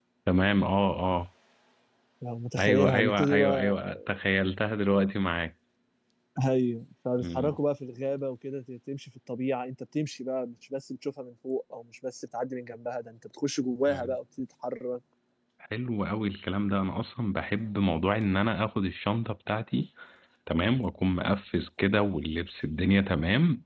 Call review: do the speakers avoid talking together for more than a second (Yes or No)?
No